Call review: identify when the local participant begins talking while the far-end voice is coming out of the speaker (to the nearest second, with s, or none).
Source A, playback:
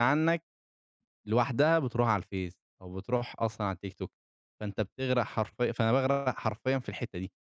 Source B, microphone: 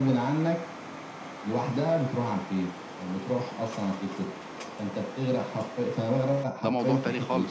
7 s